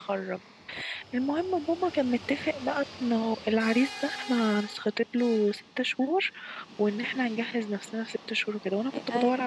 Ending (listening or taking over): listening